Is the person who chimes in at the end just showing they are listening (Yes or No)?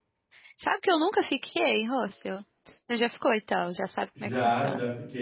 No